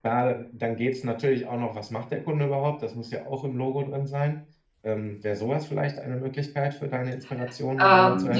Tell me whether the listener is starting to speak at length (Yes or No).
Yes